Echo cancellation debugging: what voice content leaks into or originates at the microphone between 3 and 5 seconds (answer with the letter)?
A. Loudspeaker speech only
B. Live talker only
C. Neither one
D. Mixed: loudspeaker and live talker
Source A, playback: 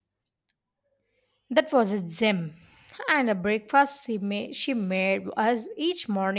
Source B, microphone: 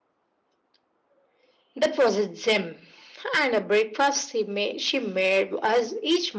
A